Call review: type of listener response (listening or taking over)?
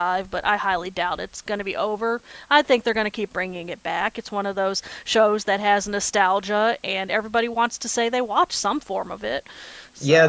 taking over